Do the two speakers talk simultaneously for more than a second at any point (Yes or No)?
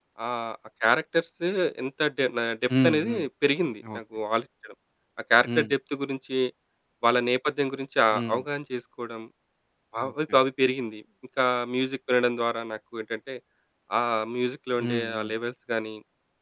No